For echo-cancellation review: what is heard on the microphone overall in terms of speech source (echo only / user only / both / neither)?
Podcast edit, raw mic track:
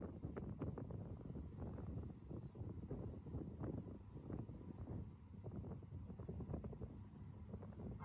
neither